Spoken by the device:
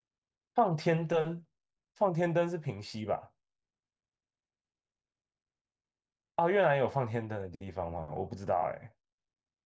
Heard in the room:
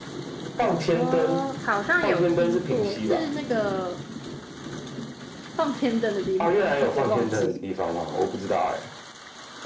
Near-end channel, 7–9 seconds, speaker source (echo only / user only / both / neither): both